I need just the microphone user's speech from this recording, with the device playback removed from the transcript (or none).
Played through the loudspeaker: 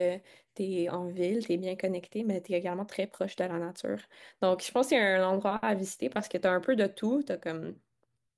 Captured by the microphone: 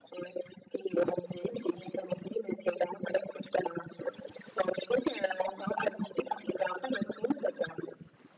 none